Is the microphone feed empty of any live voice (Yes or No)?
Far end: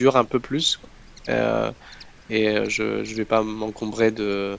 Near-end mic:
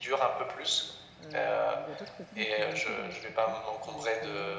No